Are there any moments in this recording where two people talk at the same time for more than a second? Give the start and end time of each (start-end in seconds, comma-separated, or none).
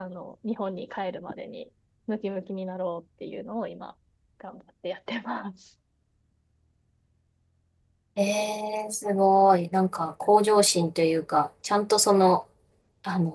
none